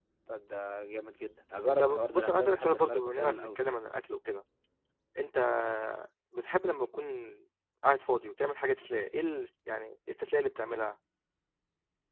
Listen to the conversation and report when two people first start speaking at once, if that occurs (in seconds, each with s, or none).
1.7 s